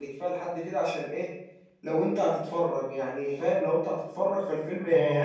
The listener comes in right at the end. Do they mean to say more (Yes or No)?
Yes